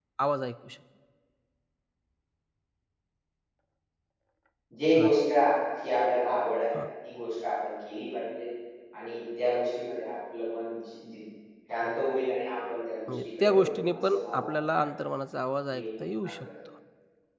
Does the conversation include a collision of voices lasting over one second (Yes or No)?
Yes